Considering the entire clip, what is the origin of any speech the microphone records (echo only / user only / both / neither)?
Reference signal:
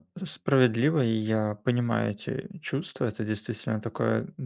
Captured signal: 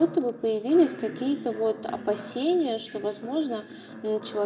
both